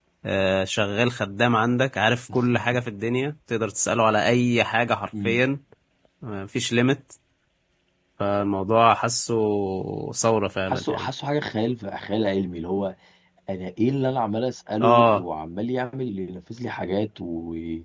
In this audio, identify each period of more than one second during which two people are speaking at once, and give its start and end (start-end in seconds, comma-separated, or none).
none